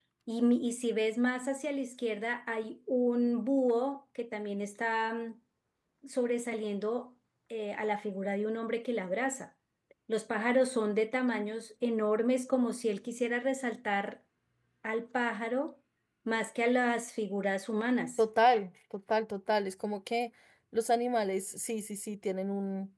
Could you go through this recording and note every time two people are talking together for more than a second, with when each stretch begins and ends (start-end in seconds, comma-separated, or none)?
none